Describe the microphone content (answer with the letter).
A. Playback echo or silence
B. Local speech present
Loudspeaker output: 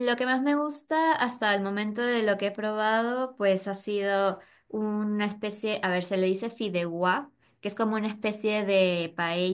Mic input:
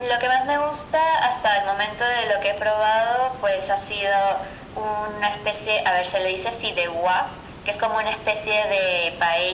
A